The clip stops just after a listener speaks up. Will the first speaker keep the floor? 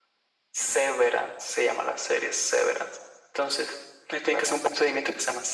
Yes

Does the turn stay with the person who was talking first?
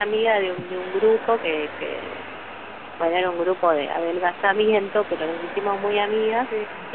Yes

